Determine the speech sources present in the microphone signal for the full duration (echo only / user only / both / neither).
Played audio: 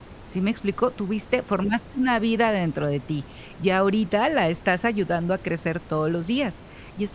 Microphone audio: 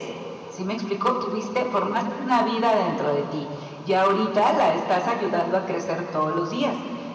echo only